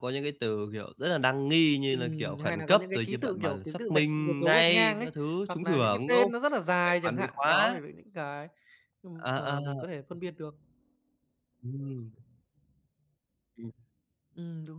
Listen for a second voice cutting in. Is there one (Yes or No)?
Yes